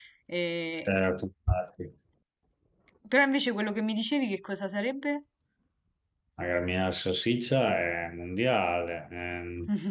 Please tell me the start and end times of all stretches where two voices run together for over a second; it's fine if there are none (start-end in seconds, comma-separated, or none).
none